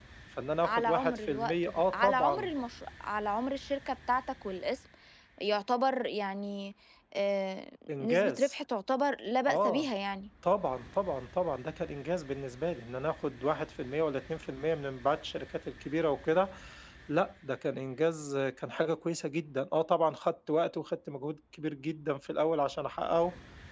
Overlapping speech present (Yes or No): Yes